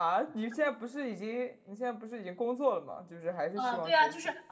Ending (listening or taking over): taking over